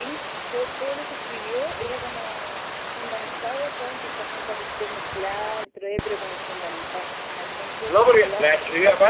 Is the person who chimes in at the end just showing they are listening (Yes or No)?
No